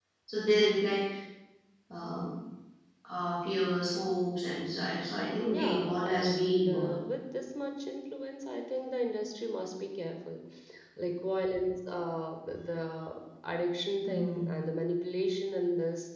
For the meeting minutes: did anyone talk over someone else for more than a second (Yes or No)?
Yes